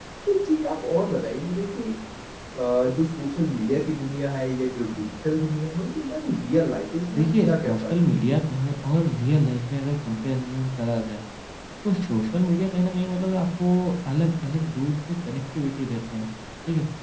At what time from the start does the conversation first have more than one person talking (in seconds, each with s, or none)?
7.1 s